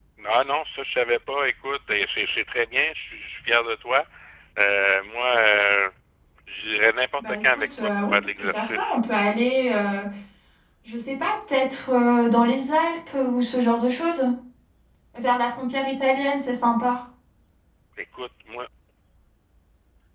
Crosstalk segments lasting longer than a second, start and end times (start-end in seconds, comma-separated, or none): 7.2-9.0